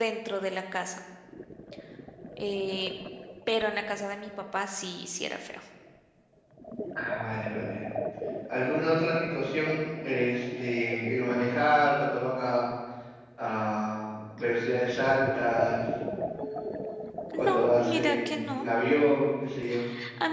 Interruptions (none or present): present